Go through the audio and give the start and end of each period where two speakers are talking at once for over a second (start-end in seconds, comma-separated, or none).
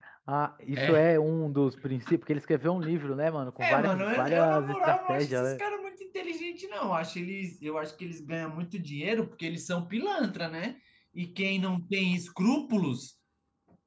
3.6-5.6